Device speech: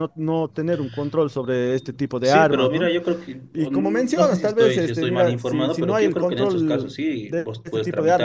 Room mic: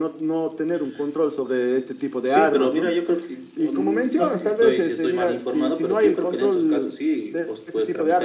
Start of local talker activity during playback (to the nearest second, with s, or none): none